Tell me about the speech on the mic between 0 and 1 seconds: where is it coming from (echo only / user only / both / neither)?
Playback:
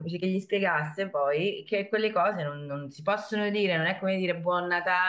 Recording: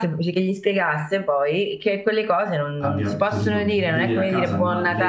echo only